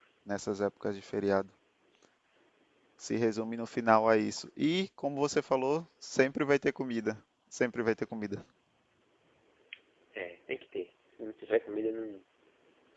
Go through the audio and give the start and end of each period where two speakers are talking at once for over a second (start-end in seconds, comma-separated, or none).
none